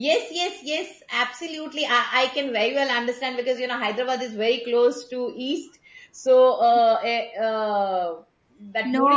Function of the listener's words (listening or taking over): listening